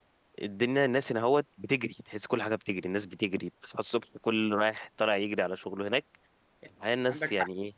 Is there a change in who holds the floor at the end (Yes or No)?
No